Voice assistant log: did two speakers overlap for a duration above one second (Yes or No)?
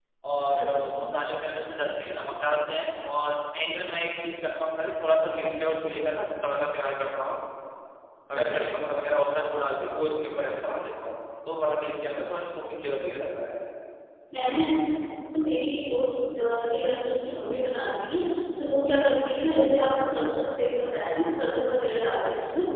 No